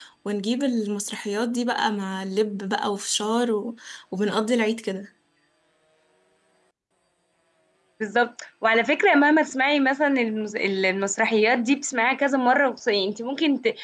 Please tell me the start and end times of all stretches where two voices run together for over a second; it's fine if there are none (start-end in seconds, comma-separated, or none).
none